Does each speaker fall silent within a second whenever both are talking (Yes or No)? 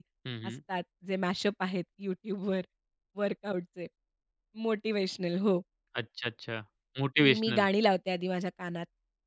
Yes